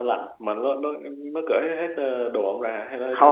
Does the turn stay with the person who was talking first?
No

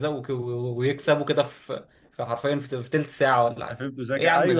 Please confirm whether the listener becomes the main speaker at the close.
Yes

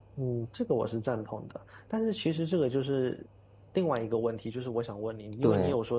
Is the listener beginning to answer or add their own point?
No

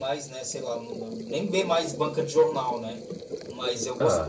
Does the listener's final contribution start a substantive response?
No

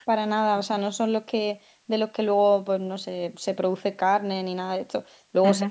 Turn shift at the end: No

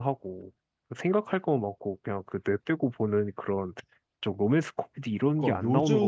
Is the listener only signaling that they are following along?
No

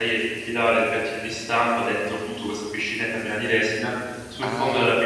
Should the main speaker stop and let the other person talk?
No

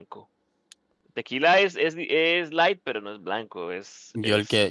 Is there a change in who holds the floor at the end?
Yes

